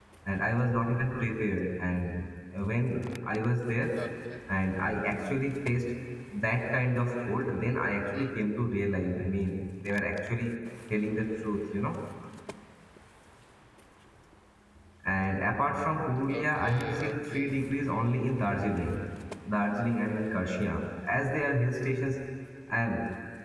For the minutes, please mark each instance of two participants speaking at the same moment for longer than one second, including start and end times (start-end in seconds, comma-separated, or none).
16.3-17.6